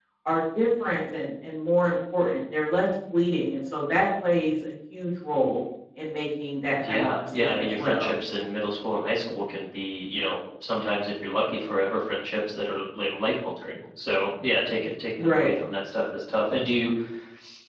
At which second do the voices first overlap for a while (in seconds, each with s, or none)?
6.9 s